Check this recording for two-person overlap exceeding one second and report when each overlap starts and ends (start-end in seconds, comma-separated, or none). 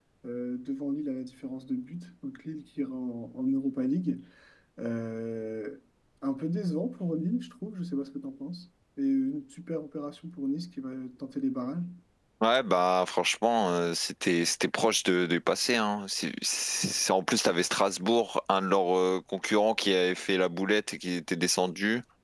none